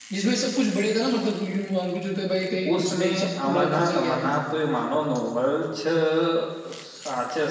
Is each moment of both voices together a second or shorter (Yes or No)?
No